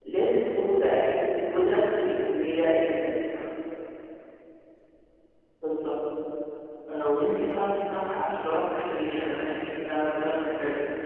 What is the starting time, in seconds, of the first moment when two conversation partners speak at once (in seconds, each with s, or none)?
none